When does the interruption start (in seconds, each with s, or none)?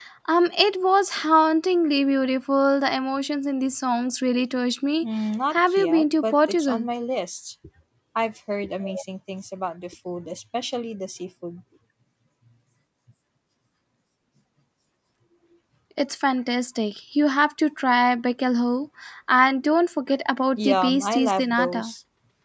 5.5 s